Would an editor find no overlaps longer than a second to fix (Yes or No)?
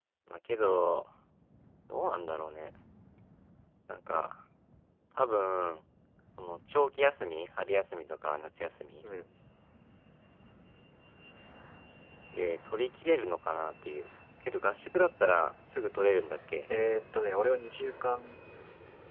Yes